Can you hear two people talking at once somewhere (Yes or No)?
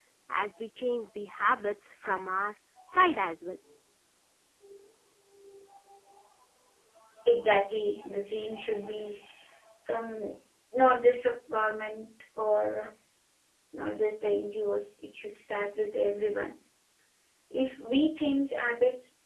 No